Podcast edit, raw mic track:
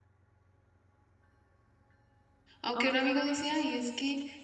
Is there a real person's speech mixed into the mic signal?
Yes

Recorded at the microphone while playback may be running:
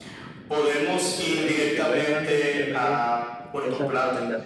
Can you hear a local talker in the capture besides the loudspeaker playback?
Yes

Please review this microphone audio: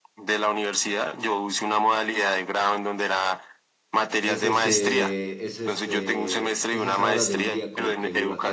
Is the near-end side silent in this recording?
No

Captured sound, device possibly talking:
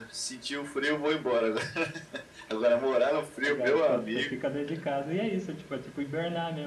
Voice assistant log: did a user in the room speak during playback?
Yes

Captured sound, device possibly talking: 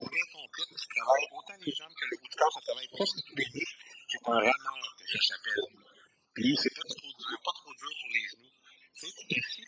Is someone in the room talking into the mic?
No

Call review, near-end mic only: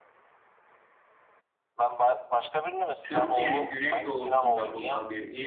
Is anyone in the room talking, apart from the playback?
Yes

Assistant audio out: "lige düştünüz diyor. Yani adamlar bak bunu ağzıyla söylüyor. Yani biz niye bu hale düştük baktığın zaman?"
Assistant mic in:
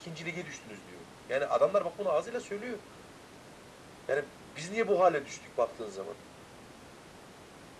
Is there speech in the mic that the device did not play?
No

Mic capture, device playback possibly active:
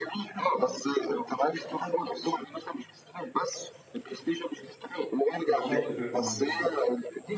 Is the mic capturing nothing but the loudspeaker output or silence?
No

